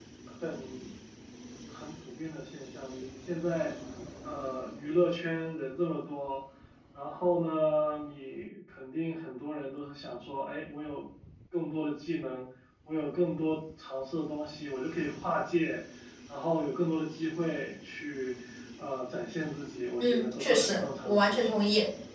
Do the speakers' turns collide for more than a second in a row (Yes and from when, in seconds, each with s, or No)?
Yes, from 20.0 s